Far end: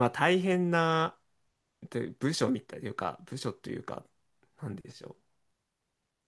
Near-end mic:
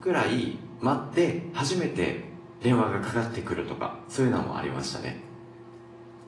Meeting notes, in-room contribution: present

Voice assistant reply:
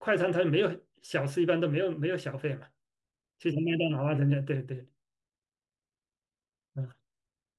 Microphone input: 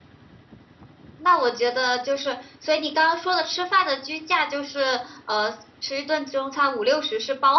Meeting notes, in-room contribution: present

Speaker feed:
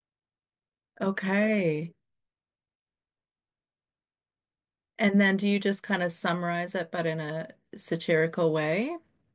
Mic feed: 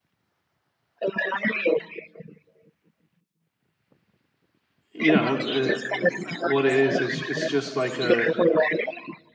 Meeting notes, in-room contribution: present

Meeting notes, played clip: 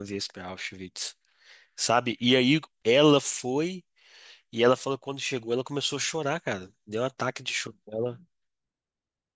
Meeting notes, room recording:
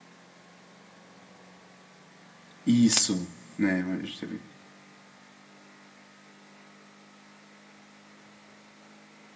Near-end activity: present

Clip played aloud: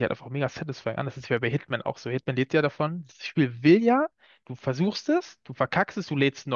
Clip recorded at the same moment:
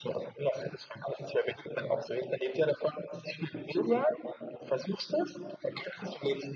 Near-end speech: none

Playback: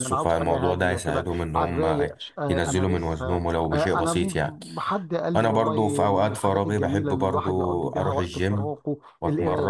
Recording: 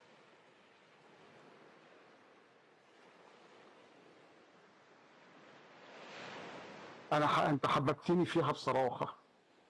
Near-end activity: present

